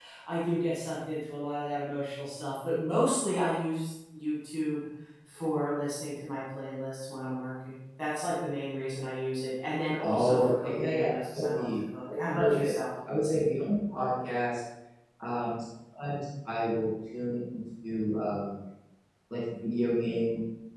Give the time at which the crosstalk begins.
10.0 s

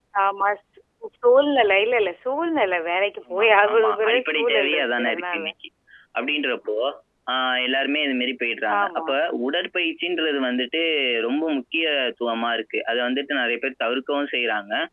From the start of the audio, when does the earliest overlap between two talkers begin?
3.3 s

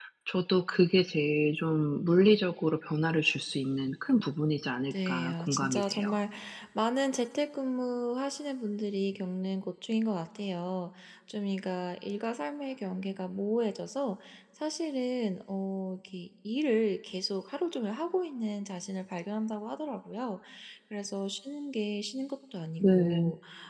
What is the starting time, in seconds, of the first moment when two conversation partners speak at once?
4.9 s

